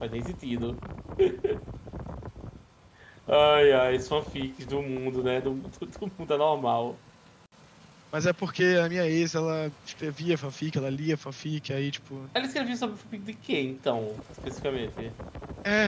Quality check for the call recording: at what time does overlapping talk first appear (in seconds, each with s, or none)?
none